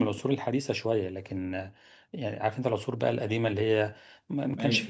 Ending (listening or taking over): listening